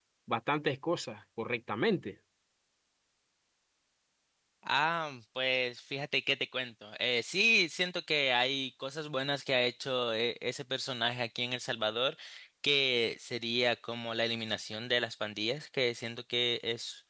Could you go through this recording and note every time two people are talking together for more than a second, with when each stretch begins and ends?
none

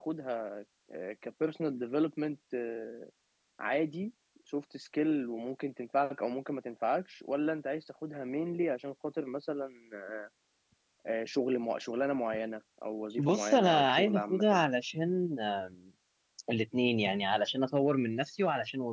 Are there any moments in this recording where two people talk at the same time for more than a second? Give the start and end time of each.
13.2-14.6

